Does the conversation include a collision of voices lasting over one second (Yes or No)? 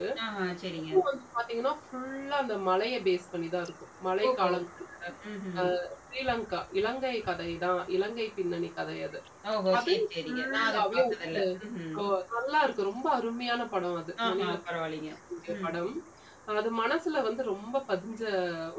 Yes